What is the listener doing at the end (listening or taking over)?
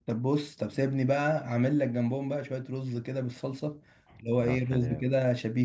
listening